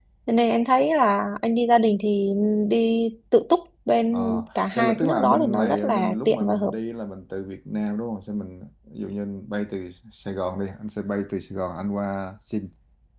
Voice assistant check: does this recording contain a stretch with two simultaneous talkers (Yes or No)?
Yes